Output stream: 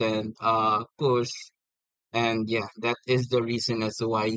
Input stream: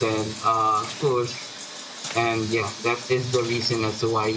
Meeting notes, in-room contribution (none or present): none